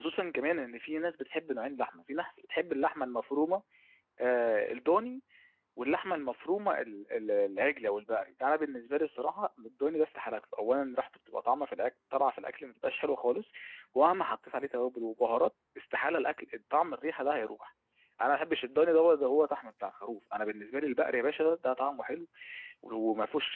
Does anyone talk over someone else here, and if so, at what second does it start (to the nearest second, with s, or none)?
none